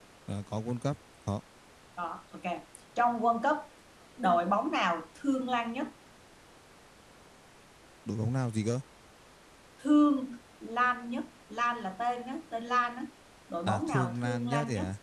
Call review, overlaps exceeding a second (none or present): present